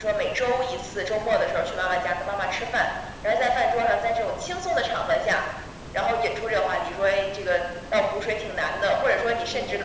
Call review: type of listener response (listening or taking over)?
listening